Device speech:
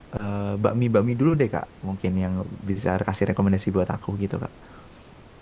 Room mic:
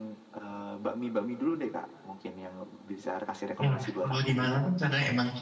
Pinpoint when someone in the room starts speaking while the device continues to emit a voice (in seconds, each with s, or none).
3.6 s